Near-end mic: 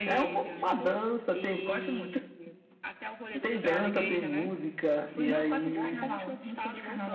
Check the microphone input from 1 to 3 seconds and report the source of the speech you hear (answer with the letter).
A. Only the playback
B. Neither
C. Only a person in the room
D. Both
D